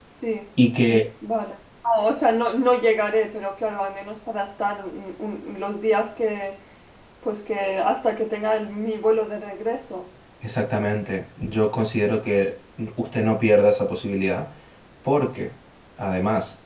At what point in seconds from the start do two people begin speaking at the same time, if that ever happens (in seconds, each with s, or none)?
none